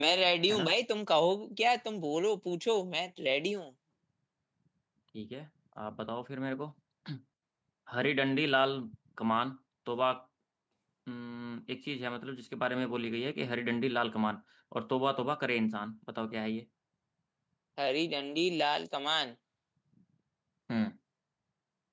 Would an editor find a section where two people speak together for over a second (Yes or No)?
No